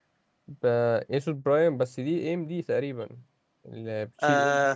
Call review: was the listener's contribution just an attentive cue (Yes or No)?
No